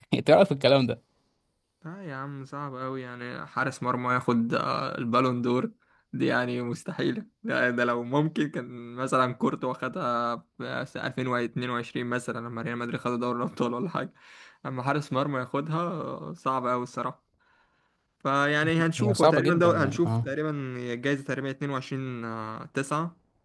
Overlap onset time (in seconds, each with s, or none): 19.0 s